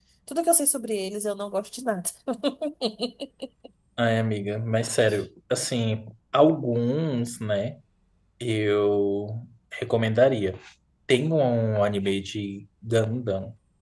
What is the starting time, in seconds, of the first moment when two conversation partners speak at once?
none

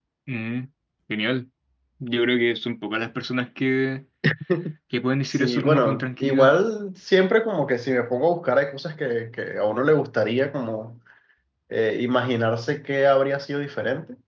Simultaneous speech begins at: 5.2 s

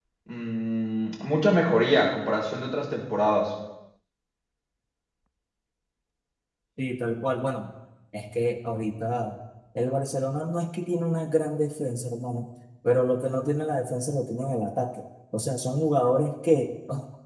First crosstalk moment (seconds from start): none

